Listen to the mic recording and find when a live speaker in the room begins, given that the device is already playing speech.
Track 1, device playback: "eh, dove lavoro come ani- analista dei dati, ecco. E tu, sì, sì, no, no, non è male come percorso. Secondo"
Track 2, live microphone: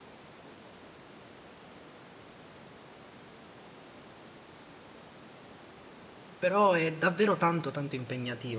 6 s

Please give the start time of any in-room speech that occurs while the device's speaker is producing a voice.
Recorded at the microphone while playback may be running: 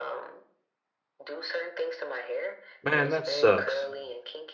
3 s

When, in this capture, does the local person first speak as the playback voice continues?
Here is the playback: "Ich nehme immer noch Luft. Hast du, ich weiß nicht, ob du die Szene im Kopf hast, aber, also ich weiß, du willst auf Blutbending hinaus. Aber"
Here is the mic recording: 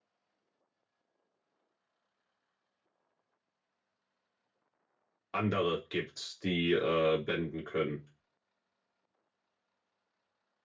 5 s

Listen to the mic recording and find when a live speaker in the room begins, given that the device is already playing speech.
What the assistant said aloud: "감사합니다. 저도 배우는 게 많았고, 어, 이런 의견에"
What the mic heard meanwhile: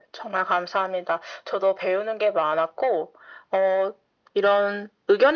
none

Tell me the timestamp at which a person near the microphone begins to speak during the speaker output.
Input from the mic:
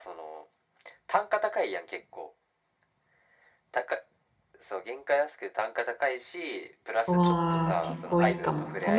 7 s

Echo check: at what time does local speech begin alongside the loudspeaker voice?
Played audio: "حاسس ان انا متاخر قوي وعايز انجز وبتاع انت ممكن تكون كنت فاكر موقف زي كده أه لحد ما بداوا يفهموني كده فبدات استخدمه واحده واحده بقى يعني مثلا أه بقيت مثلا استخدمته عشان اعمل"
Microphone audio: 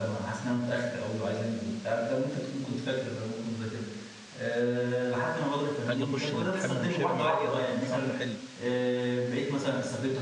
6 s

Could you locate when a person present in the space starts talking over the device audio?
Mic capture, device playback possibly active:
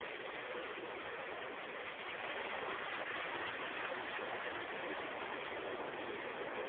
none

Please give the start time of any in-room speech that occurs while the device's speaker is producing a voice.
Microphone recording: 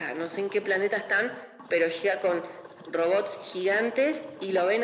none

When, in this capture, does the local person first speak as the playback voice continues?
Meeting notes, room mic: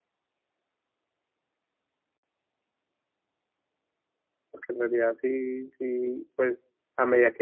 5 s

